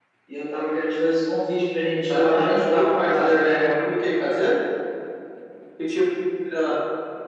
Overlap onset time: 2.1 s

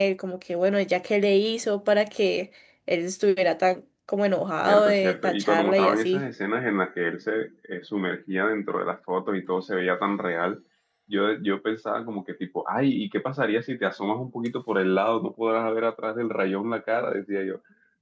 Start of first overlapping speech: 4.6 s

